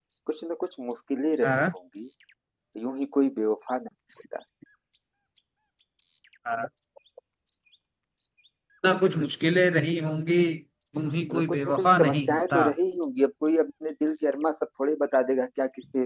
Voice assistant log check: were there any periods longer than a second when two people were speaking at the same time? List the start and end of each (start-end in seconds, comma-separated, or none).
11.3-12.7